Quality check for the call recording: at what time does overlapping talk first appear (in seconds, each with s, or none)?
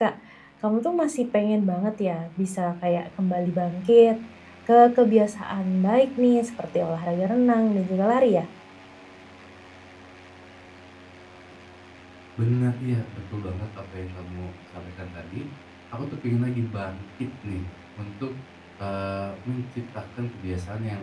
none